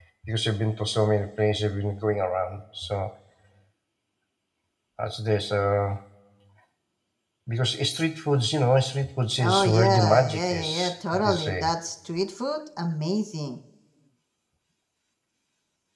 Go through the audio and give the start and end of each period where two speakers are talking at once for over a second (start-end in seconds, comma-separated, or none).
9.4-11.7